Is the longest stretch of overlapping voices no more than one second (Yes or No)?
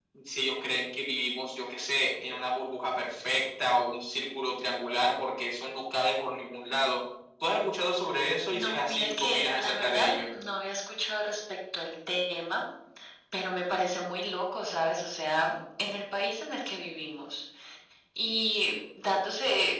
No